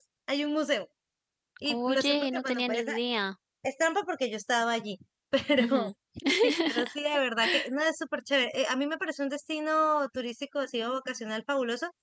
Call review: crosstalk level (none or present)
present